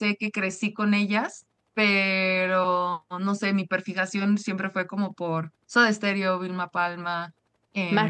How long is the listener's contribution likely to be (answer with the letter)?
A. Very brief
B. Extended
A